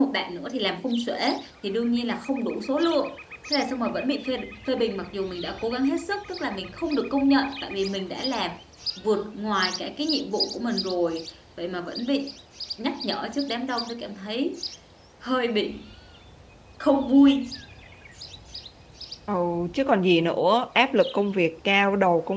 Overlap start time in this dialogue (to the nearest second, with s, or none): none